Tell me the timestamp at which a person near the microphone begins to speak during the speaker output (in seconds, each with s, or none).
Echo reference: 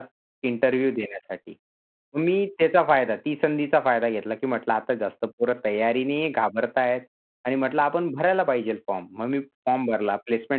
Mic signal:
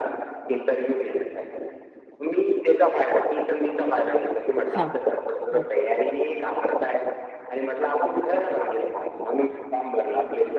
4.6 s